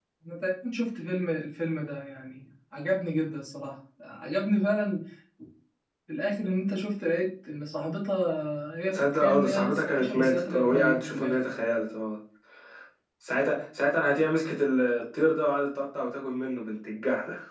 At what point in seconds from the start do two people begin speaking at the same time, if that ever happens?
8.9 s

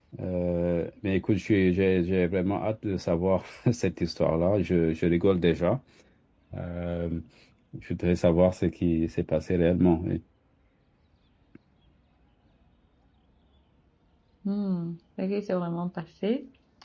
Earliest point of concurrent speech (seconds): none

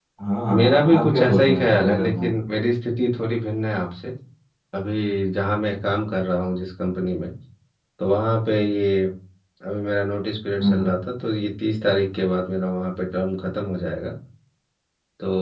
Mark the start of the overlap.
0.5 s

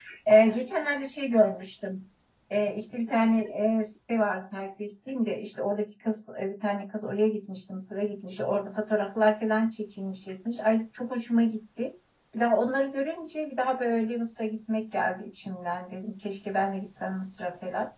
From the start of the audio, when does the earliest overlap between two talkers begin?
none

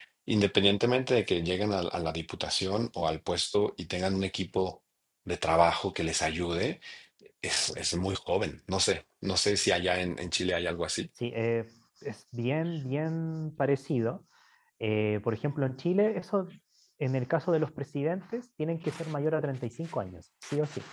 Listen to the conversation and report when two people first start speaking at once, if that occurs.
none

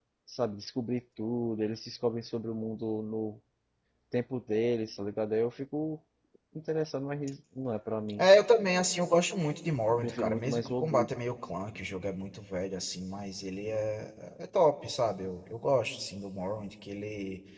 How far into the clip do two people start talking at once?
9.9 s

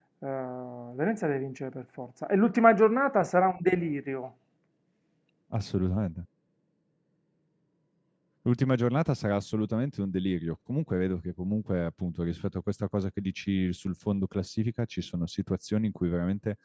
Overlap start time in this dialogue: none

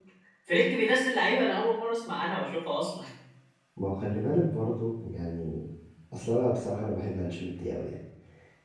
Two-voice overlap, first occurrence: none

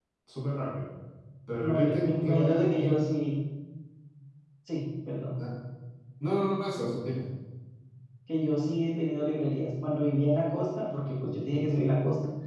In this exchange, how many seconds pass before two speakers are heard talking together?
1.6 s

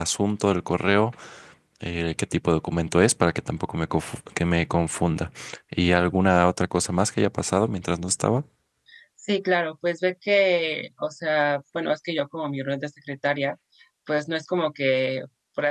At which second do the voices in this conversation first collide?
none

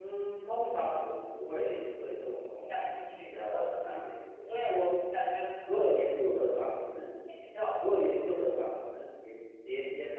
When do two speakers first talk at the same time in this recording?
2.7 s

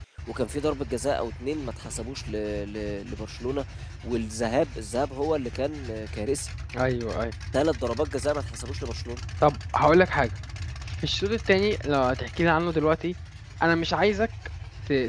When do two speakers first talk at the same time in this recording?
none

